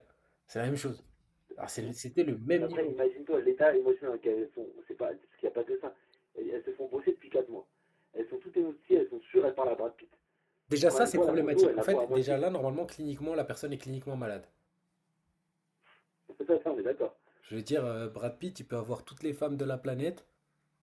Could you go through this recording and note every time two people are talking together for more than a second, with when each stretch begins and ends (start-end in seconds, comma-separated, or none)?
10.9-12.4